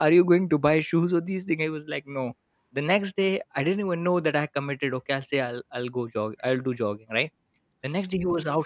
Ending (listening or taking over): listening